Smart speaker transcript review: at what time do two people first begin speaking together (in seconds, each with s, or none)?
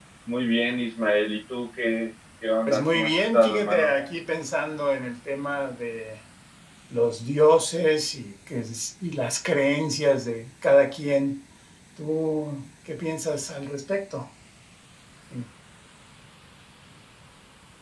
2.7 s